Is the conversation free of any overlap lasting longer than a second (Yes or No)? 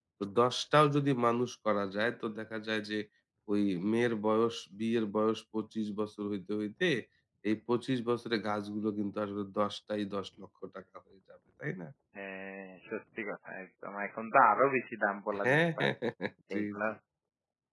Yes